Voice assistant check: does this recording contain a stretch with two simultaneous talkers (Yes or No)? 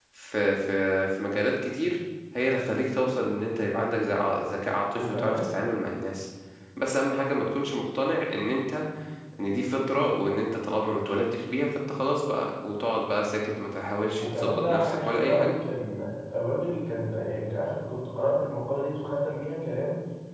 Yes